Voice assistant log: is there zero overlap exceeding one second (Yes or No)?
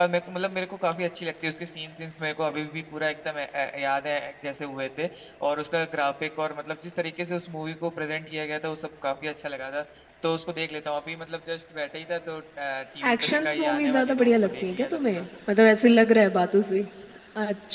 No